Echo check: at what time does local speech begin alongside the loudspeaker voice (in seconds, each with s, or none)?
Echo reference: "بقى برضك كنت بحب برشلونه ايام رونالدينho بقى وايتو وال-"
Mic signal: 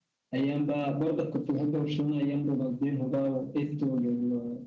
none